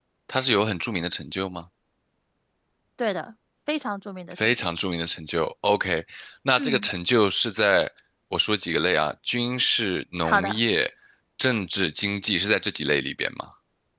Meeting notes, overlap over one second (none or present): none